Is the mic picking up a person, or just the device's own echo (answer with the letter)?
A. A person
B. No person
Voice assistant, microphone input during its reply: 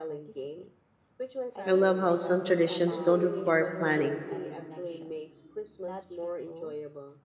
A